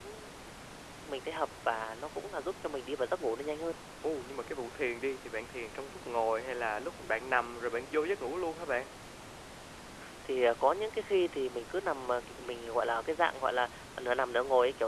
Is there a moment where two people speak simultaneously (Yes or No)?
No